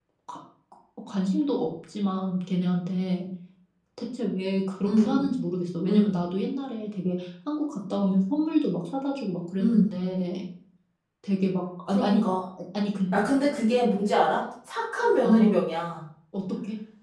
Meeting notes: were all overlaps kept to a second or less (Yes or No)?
Yes